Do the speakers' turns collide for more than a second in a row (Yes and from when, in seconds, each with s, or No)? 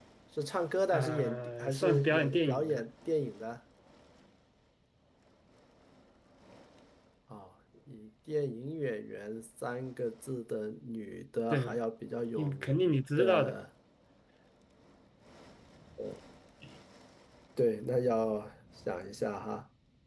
Yes, from 0.9 s